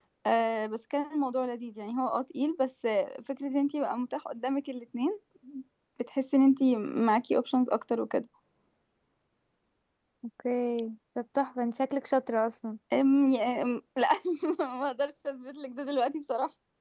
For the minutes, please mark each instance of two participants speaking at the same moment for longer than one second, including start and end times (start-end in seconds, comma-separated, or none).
none